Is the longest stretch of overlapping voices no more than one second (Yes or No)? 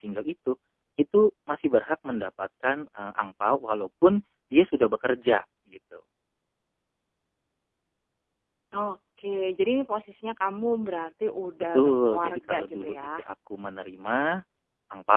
No